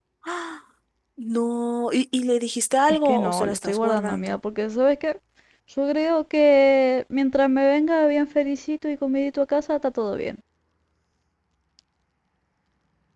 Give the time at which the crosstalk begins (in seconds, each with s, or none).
2.9 s